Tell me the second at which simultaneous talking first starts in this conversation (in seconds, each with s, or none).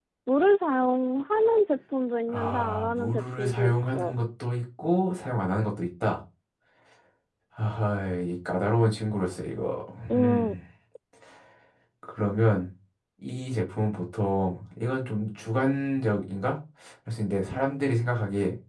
2.3 s